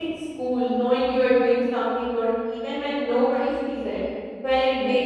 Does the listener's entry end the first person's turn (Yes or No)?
No